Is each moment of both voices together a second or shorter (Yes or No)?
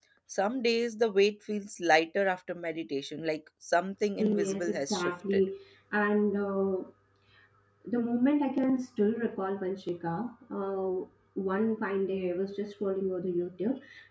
No